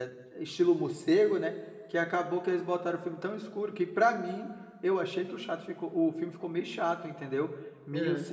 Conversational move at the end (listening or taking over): listening